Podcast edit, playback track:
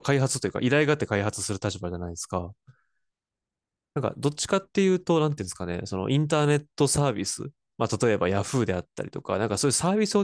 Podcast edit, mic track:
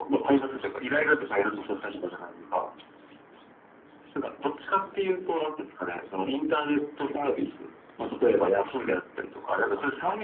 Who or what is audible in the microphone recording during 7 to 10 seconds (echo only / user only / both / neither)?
echo only